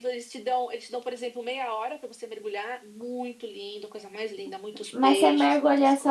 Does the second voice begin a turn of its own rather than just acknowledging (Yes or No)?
Yes